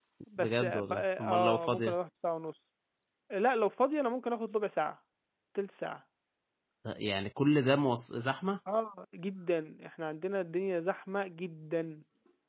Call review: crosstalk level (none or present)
present